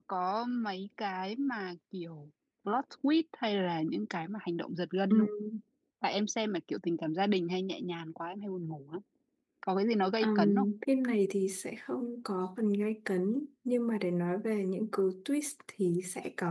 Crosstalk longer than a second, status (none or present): none